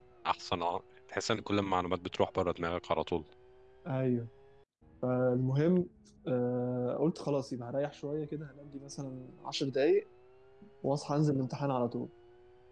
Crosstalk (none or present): none